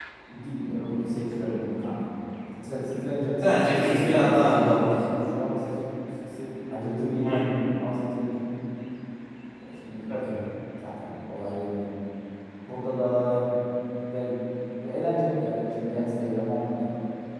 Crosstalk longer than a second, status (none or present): present